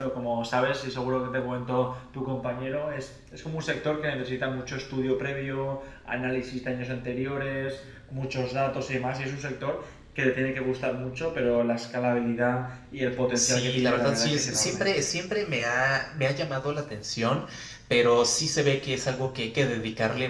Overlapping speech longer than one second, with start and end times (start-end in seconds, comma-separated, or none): 13.3-14.9